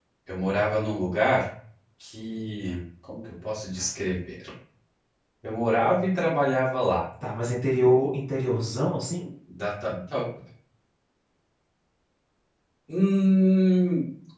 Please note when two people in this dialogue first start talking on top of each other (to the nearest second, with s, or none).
none